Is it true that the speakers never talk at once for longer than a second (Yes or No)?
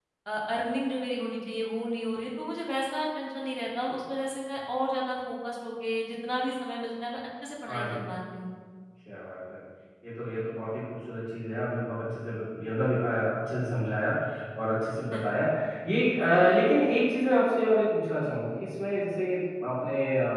Yes